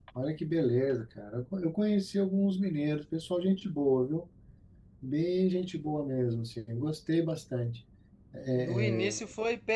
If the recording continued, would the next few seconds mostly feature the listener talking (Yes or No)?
Yes